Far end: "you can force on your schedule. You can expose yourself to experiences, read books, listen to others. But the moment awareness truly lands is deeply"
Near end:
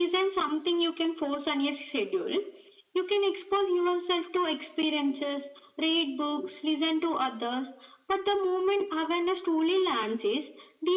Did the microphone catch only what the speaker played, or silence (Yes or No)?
Yes